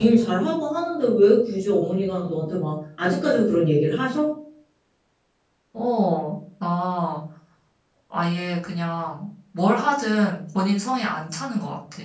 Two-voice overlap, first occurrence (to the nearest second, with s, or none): none